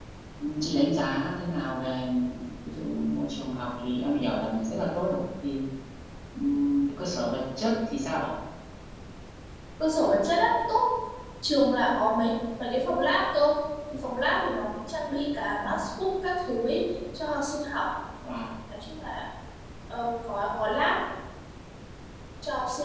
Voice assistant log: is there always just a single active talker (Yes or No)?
Yes